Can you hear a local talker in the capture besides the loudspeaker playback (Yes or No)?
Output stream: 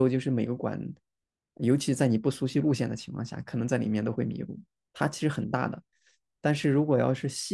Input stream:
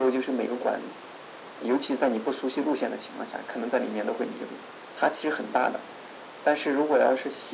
No